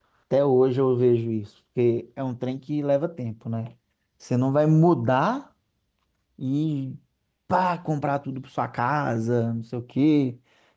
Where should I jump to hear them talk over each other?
none

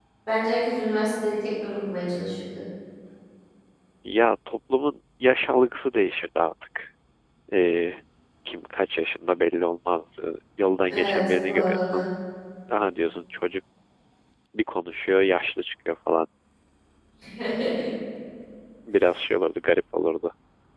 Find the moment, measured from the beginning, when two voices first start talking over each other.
10.8 s

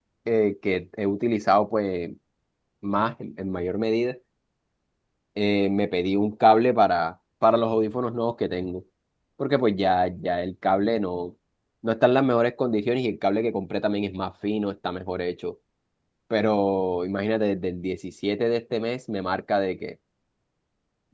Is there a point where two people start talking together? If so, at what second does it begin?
none

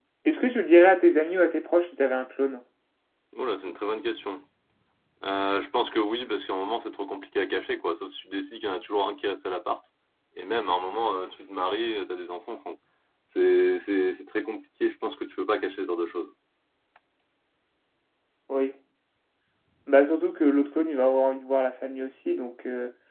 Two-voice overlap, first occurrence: none

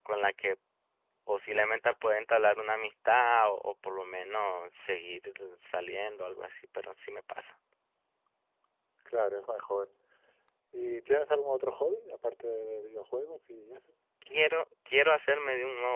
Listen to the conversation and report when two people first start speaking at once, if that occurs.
none

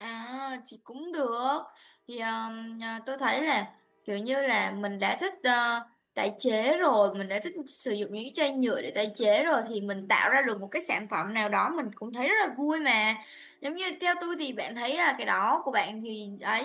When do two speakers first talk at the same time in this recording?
none

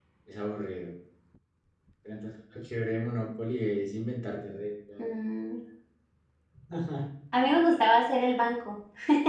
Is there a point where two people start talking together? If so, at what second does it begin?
none

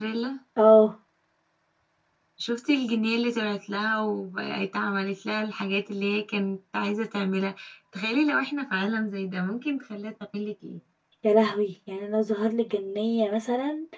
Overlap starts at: none

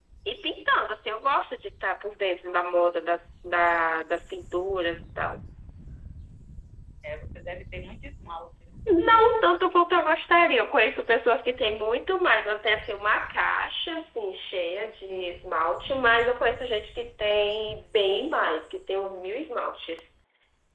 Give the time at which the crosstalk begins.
none

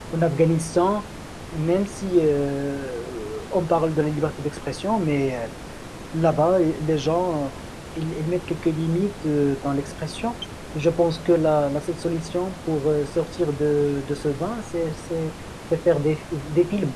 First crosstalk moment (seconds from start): none

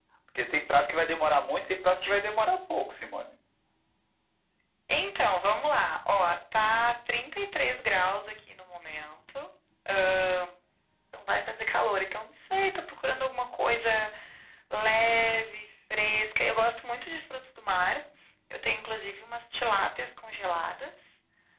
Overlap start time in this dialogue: none

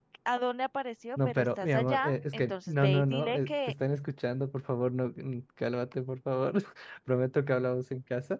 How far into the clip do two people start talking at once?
1.2 s

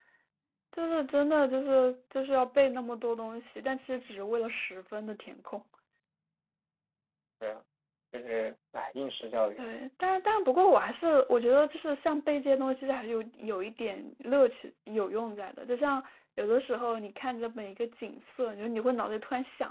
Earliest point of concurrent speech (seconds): none

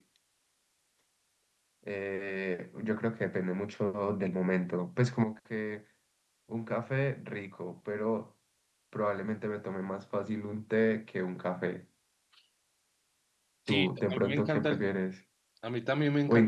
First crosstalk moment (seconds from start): 13.7 s

